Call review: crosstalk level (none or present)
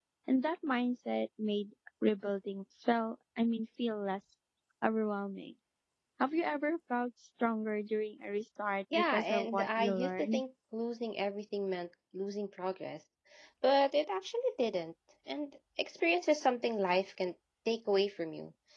present